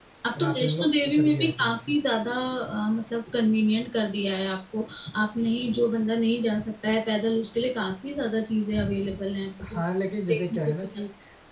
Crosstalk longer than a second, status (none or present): present